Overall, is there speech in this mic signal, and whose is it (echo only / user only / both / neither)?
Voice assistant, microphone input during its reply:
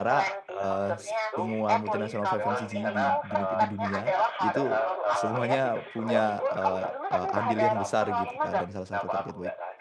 both